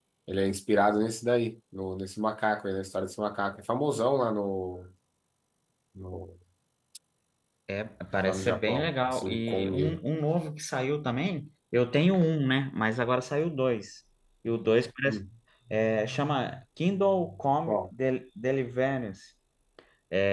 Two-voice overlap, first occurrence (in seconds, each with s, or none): 8.2 s